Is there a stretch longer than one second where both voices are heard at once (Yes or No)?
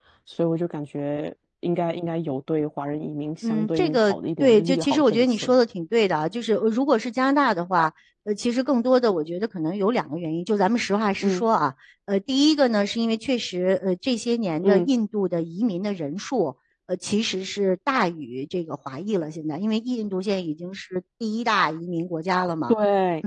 Yes